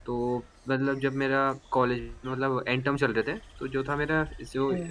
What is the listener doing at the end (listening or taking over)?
listening